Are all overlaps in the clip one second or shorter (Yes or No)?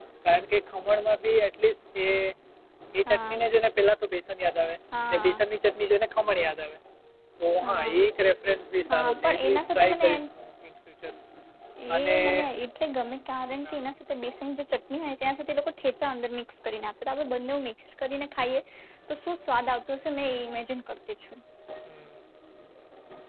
No